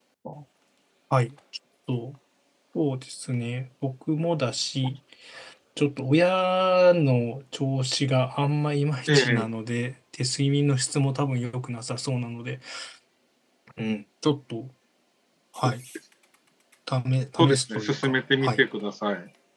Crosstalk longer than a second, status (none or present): present